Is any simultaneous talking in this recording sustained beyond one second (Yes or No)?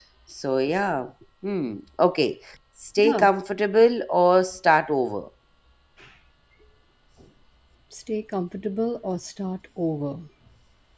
No